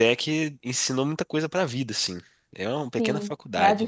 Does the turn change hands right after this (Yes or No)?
Yes